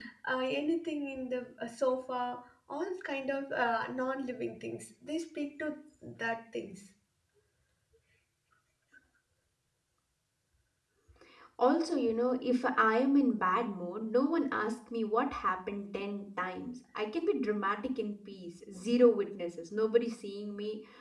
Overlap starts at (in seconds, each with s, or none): none